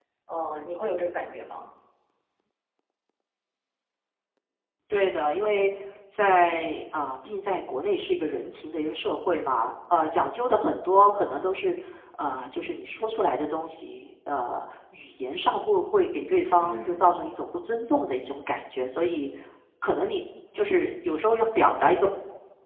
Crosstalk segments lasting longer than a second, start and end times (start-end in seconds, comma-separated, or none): none